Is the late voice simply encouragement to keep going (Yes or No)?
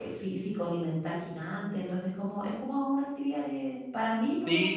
No